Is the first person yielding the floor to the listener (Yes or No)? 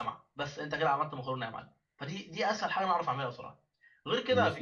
No